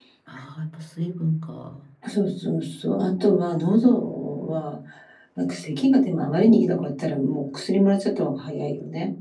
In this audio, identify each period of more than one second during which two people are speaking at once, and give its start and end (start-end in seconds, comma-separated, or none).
none